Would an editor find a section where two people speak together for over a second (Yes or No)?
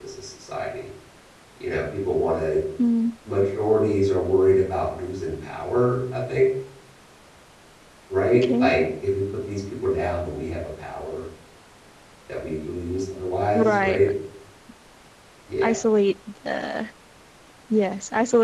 No